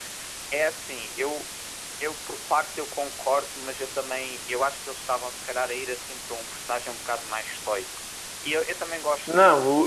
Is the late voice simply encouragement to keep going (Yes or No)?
No